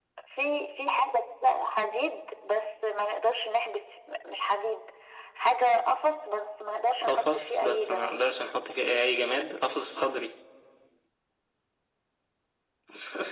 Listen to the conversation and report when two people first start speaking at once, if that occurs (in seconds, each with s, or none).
7.0 s